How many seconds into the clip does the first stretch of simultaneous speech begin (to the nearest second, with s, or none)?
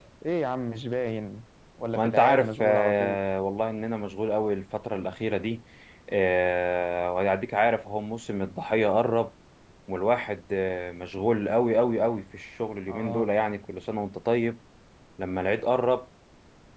2 s